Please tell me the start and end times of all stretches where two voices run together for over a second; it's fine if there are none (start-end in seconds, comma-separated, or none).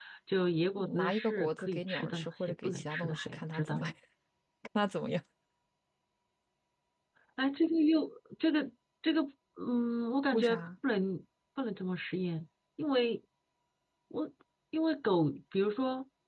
1.0-3.9